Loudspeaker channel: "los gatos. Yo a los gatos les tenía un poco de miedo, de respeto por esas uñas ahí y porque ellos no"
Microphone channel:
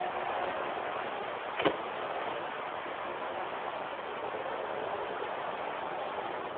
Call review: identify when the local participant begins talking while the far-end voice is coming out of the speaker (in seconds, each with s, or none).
none